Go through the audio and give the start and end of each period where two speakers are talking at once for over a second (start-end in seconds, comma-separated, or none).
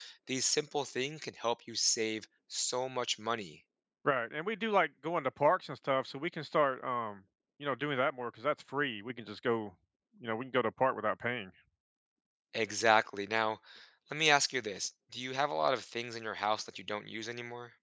none